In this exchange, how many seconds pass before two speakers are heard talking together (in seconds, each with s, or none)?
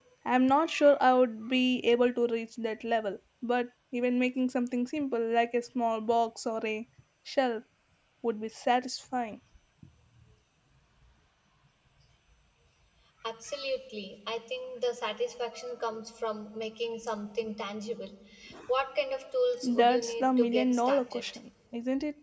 19.6 s